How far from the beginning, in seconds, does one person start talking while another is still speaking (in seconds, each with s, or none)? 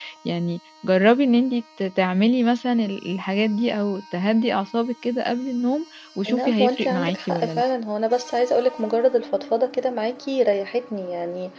6.3 s